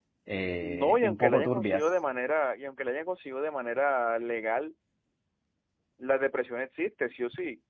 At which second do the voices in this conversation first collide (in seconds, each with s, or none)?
0.6 s